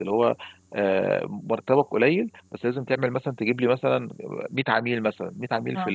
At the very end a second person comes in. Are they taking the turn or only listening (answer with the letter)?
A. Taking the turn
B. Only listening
B